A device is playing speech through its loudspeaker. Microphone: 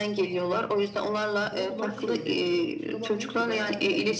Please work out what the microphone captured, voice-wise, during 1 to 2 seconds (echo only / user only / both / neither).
both